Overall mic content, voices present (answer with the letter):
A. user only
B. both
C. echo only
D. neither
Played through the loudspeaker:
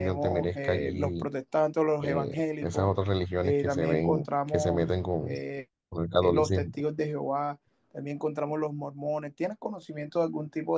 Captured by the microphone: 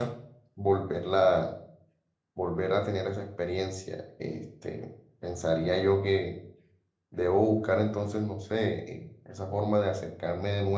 A